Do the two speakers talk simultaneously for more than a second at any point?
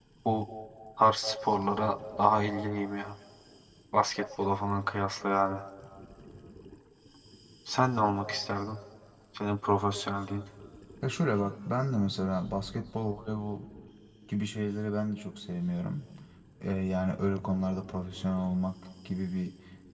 No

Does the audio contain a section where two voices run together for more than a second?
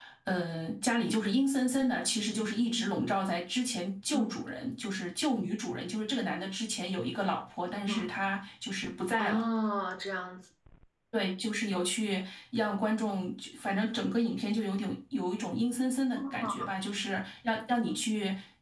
No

